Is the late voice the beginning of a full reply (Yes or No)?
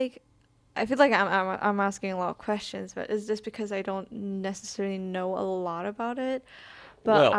Yes